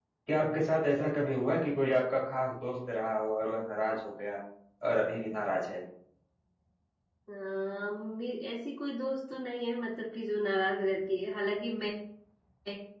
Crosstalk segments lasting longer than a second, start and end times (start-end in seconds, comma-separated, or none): none